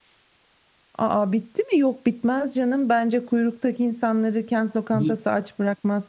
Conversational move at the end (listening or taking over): listening